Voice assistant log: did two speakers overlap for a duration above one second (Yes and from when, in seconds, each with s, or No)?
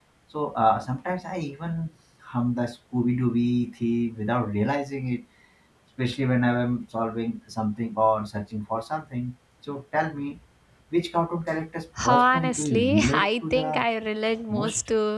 Yes, from 12.1 s